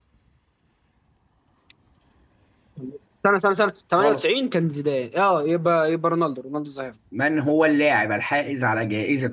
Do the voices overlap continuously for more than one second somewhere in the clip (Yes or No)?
No